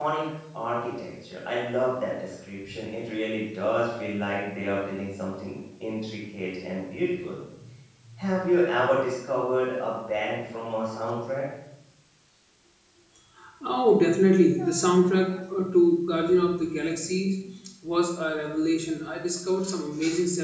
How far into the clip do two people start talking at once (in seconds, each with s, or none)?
none